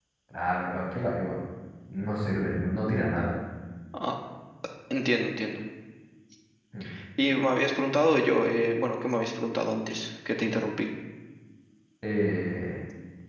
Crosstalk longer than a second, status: none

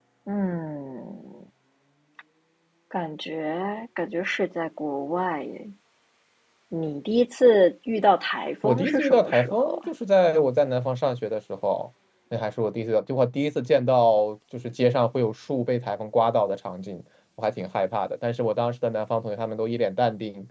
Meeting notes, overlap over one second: present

